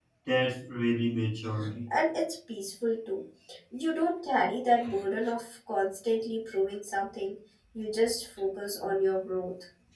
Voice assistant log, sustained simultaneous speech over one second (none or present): none